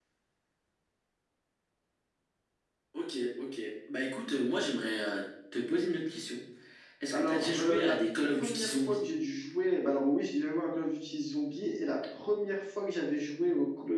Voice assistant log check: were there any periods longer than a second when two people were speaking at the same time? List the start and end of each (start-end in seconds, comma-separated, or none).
7.1-9.0